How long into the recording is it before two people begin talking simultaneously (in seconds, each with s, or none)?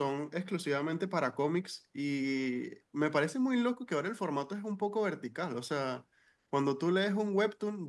none